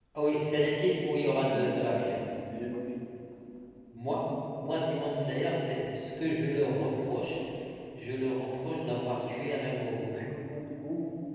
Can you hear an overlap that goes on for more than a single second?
No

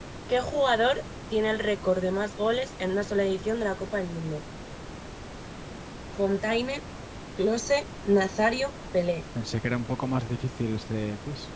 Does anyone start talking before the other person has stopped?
No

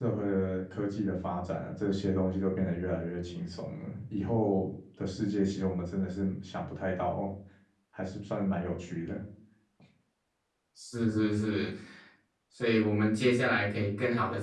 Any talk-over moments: No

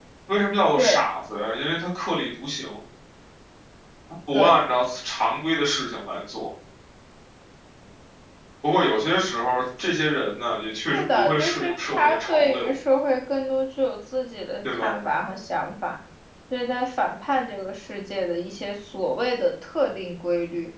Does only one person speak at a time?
No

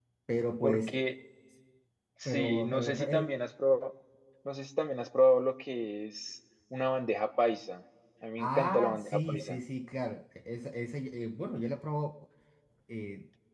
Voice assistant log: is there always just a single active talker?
No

